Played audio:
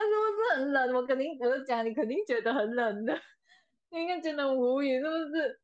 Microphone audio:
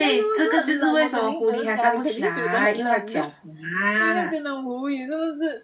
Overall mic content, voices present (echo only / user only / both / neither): both